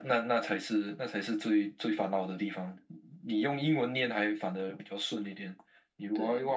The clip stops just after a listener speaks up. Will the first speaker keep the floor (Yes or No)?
Yes